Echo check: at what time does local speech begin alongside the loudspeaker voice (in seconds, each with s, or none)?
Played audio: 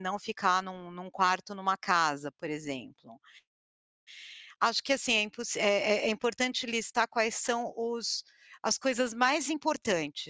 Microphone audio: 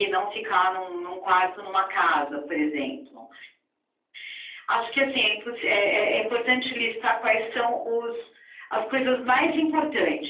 none